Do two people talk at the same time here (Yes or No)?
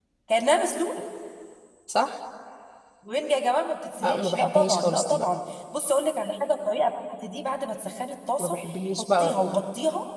Yes